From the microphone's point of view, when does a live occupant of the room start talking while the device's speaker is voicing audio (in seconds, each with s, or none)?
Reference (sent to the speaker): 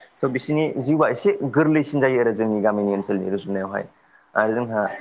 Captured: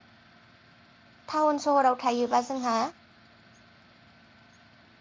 1.3 s